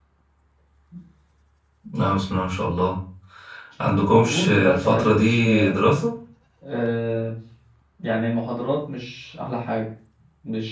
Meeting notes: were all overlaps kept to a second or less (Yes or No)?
No